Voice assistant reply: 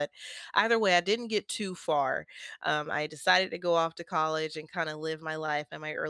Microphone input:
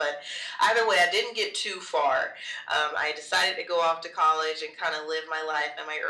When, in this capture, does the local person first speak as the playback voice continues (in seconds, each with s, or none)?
none